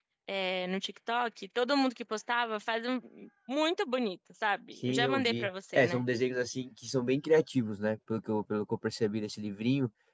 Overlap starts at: 4.8 s

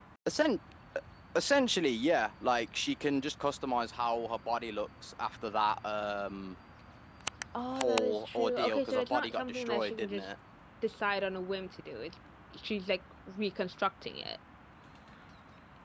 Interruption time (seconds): 7.7 s

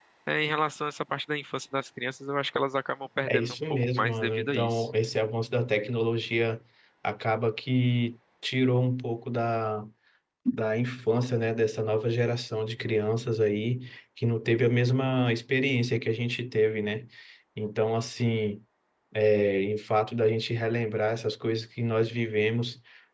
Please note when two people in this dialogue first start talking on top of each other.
3.3 s

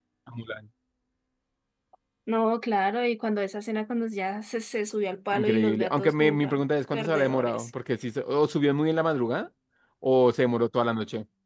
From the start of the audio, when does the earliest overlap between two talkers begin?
5.3 s

